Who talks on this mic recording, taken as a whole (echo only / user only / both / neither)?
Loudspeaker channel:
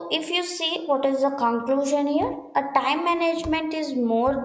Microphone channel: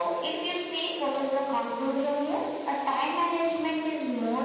echo only